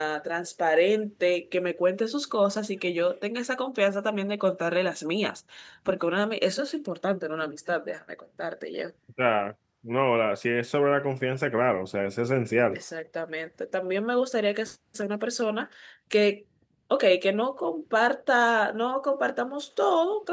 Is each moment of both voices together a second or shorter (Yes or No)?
Yes